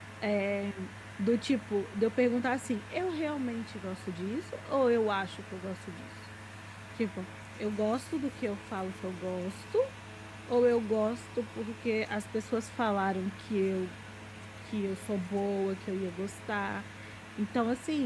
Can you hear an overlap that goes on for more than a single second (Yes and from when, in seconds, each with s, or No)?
No